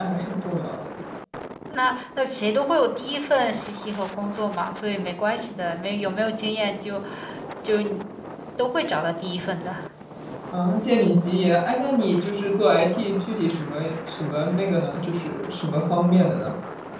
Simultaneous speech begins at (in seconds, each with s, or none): none